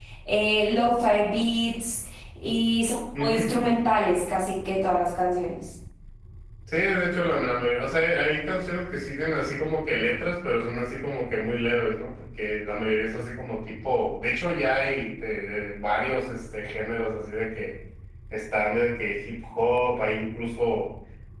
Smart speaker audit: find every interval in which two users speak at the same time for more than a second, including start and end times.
none

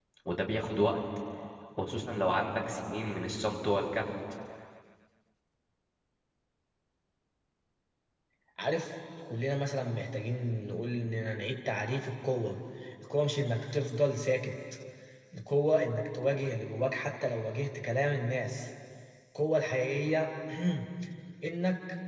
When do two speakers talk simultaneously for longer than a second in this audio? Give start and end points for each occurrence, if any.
none

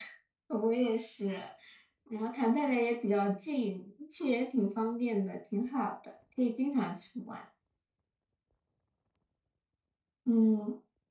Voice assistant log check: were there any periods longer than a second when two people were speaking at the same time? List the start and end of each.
none

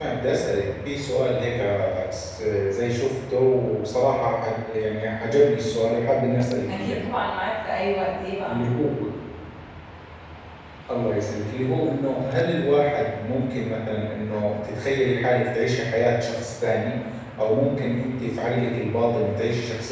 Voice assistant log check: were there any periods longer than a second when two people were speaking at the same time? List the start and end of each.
none

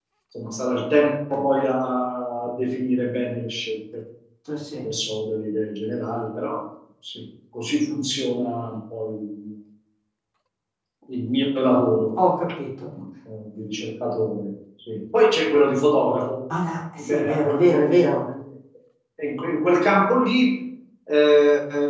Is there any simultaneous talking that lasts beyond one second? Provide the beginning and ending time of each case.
17.0-18.3

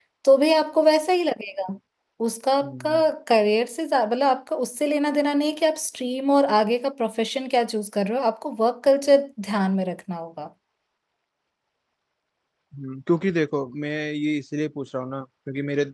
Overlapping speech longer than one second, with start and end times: none

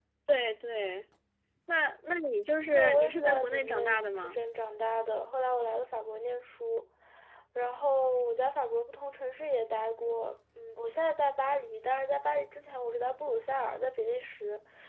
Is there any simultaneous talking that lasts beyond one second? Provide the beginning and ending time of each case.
2.7-4.4

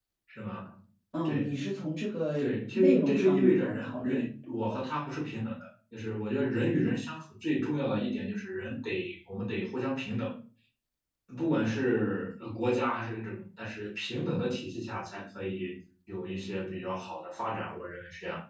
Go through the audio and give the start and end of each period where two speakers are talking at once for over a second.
2.4-4.2

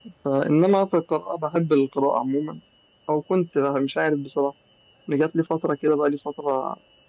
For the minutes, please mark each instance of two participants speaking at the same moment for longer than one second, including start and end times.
none

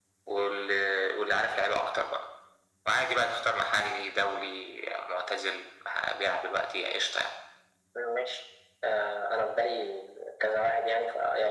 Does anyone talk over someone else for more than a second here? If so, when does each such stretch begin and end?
none

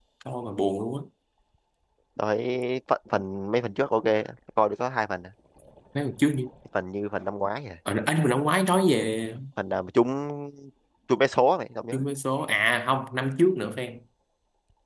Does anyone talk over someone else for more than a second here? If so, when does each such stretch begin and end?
none

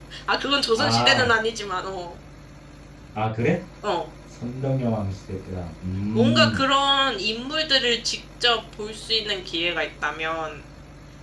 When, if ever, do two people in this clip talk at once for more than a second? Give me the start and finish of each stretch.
none

